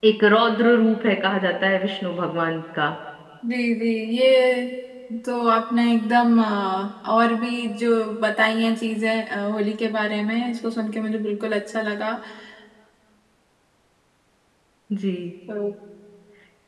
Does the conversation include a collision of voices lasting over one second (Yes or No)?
No